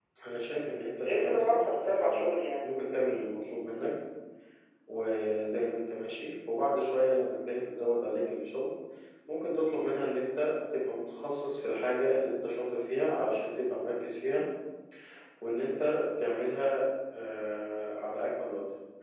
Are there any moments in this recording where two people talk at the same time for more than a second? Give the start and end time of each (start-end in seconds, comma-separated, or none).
1.1-2.2